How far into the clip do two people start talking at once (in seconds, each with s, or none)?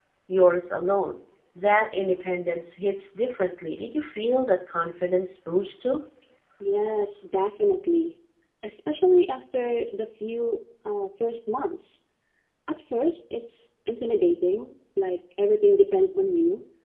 none